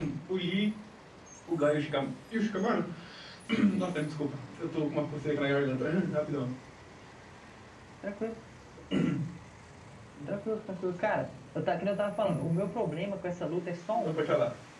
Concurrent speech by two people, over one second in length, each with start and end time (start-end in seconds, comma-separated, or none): none